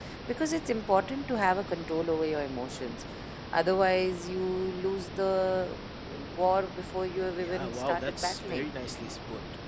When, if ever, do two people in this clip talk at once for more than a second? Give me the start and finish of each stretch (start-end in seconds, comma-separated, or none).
7.4-8.7